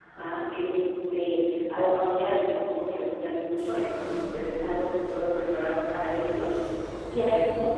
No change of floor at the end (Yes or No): Yes